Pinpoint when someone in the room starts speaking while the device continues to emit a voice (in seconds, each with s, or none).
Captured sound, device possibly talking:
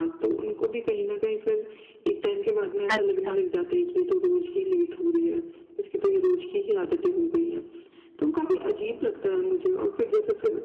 2.9 s